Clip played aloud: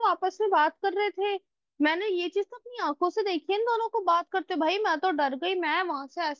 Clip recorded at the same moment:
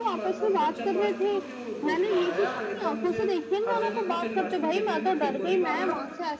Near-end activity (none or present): present